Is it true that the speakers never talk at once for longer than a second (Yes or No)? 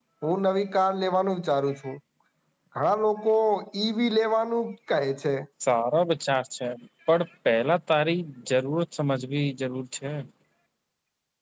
Yes